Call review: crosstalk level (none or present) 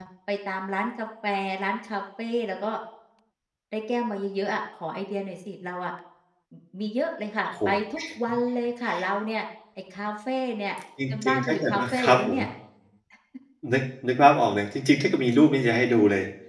present